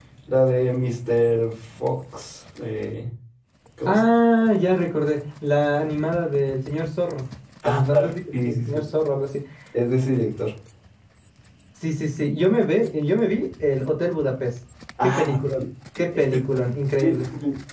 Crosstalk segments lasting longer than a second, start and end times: 7.7-8.8

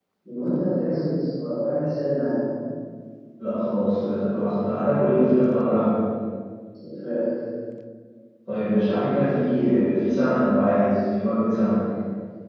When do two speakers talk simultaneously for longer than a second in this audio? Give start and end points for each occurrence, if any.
none

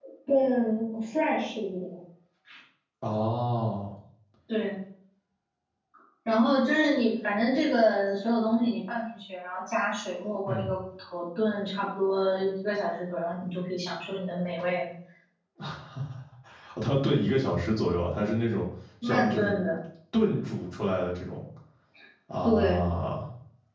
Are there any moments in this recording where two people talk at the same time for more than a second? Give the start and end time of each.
none

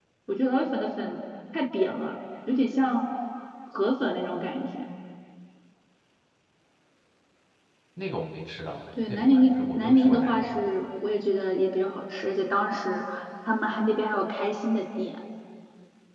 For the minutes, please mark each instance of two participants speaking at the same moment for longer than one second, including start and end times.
9.1-10.6

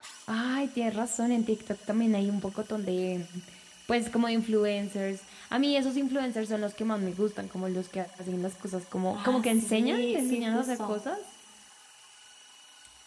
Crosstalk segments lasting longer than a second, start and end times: 9.1-11.0

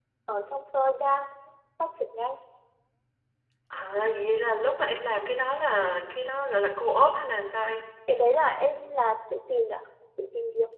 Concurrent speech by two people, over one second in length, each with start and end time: none

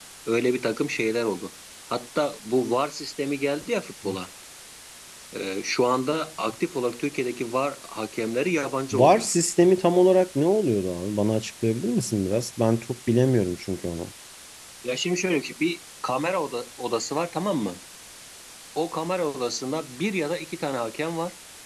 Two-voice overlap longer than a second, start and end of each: none

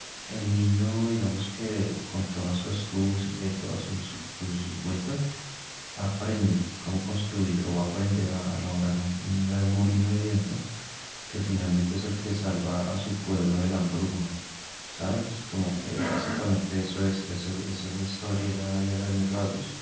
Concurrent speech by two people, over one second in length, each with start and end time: none

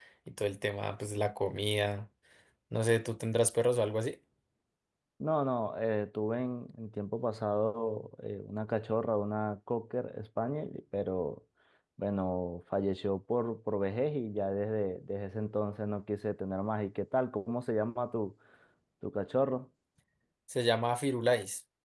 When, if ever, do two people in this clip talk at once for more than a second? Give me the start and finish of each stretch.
none

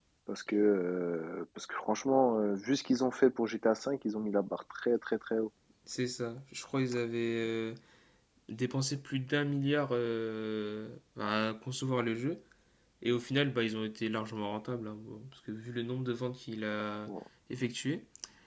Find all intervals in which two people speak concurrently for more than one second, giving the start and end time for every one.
none

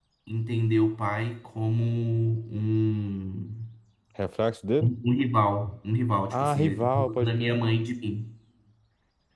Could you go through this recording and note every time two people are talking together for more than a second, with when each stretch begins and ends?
6.3-7.6

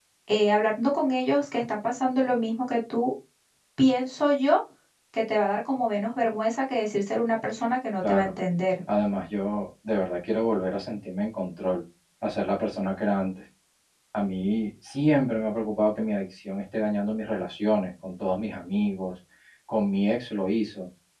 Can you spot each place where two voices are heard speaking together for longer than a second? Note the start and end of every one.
none

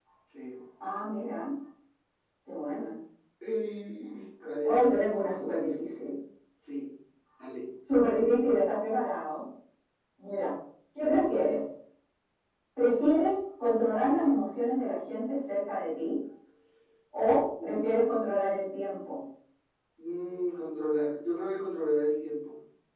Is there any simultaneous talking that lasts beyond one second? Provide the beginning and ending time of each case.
none

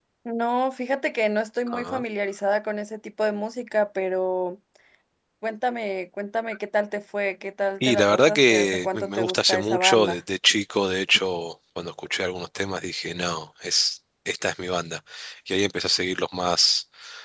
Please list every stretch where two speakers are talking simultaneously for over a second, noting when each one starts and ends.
7.8-10.2

